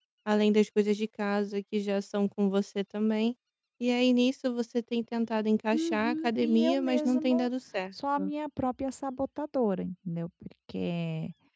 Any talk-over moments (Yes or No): Yes